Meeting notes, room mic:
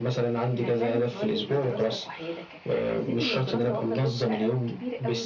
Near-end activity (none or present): present